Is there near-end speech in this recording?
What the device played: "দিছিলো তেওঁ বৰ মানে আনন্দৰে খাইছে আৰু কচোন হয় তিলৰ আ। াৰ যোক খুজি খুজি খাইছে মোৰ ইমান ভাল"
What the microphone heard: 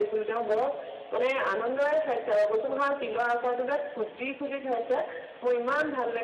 No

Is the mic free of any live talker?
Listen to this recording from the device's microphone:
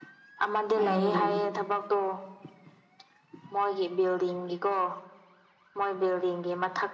No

